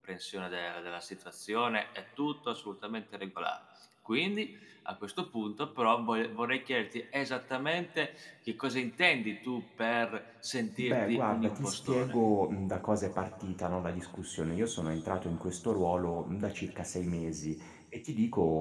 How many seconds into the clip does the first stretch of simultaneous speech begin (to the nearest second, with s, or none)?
11 s